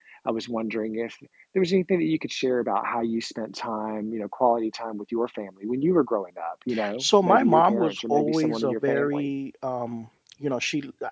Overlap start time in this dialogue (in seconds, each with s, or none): 7.0 s